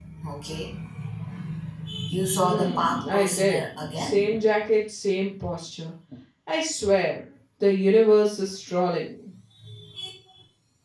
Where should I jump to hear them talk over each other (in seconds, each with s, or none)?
2.3 s